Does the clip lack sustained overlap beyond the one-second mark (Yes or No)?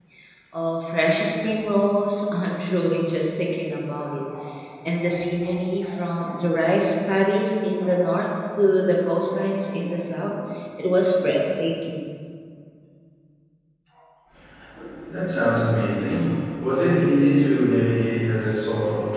Yes